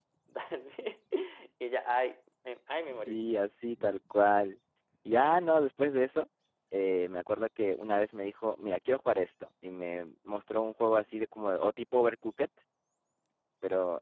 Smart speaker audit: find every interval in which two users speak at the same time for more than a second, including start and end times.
none

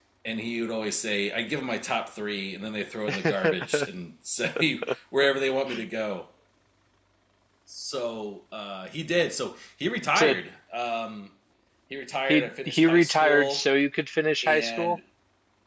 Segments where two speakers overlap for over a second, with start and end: 12.3-13.7

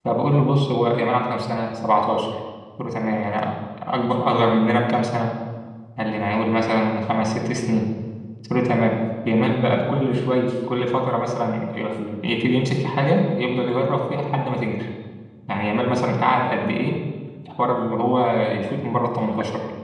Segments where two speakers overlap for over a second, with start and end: none

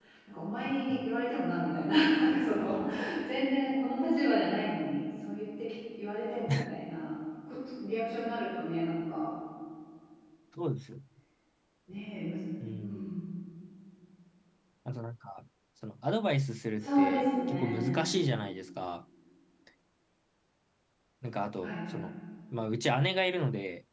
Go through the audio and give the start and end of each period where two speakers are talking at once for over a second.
16.8-18.0

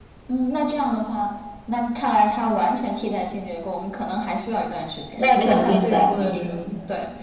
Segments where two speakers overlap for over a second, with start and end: 5.2-6.6

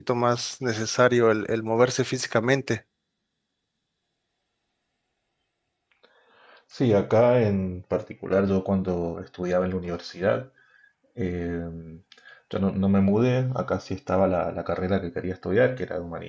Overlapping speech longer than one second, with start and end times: none

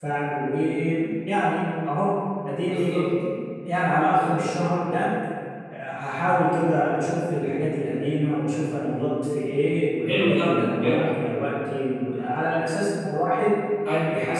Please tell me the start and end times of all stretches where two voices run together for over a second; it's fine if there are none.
none

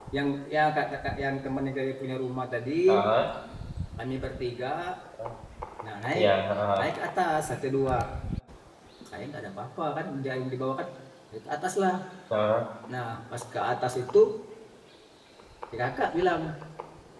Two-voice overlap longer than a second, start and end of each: none

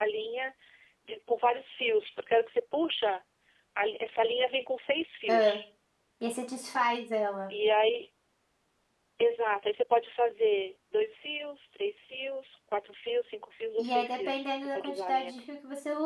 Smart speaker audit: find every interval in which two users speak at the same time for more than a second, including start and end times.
13.8-15.4

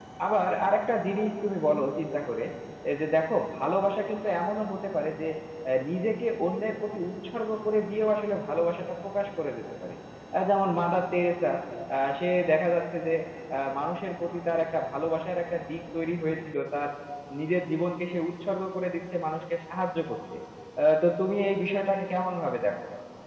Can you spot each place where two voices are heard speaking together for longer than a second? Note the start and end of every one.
none

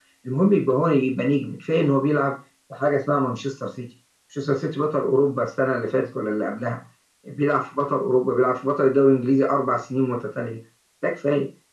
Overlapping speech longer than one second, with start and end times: none

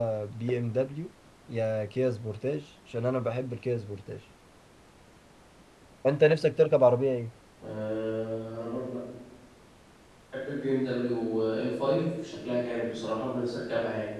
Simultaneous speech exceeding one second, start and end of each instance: none

